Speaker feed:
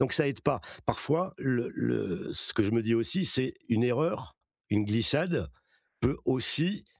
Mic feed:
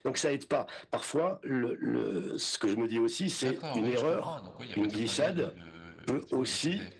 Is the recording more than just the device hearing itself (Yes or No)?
Yes